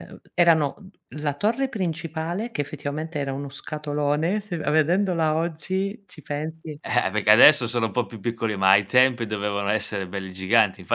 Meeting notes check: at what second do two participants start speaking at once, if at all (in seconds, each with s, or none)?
none